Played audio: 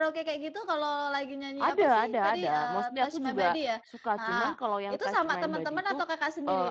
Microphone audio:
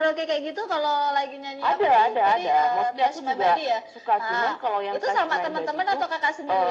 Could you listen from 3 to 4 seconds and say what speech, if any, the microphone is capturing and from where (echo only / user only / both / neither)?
echo only